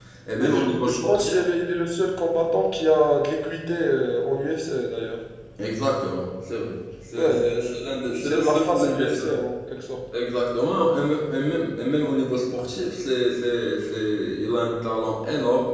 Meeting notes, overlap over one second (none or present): present